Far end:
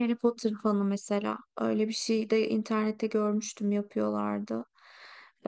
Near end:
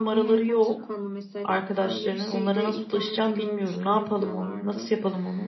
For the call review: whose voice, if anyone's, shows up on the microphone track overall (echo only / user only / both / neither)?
both